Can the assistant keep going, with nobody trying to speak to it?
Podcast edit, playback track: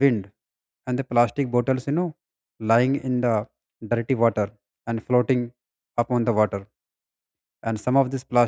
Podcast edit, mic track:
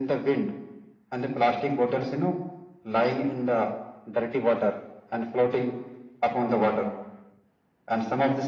Yes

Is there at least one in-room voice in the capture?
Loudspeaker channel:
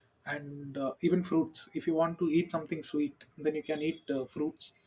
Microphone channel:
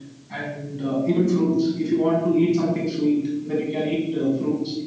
No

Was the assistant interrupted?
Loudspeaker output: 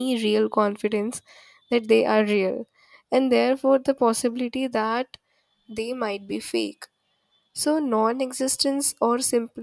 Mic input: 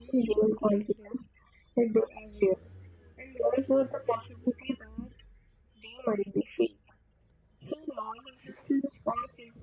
No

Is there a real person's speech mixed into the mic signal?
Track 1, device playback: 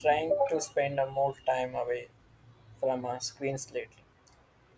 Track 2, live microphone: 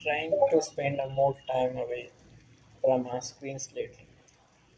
No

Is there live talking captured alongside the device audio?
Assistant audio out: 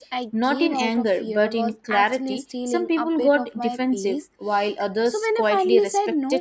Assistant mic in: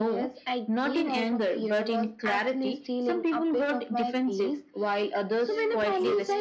Yes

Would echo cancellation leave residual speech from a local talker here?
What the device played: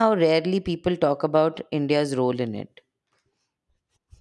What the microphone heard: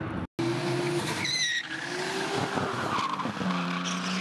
No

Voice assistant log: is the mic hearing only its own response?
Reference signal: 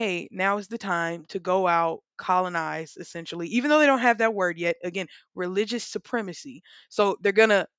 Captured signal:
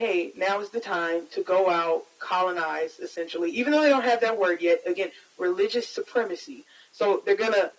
Yes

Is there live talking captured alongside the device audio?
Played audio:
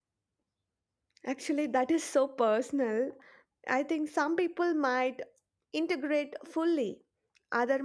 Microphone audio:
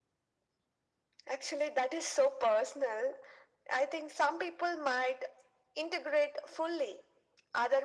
No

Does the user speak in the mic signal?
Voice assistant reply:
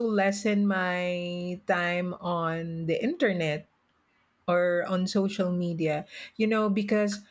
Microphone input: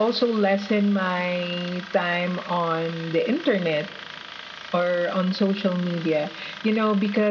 No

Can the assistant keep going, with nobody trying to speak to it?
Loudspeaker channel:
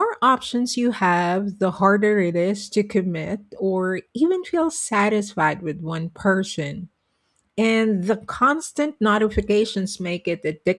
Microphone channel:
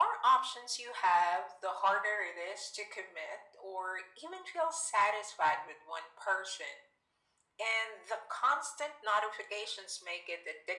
Yes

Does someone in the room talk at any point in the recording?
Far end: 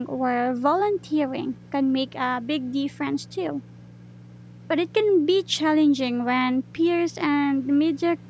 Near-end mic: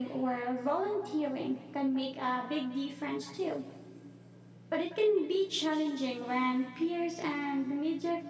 No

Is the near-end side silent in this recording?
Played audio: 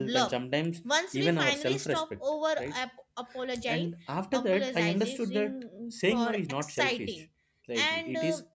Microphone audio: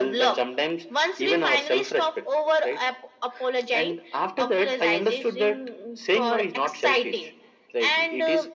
Yes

